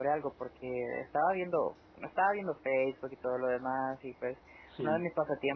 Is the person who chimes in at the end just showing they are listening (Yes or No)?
Yes